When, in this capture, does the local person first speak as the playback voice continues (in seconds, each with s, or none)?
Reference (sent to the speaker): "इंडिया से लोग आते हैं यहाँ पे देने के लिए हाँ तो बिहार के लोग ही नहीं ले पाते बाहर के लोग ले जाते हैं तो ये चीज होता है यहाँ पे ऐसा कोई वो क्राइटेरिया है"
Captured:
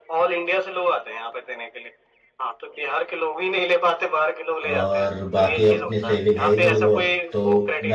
4.7 s